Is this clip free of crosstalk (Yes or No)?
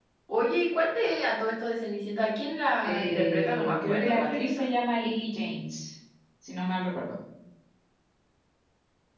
No